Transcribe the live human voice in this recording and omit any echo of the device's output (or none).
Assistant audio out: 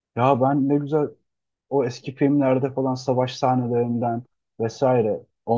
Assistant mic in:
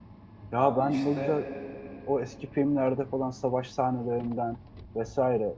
Abi işte